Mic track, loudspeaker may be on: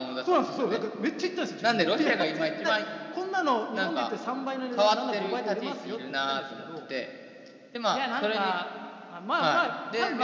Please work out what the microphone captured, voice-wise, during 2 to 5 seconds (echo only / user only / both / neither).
echo only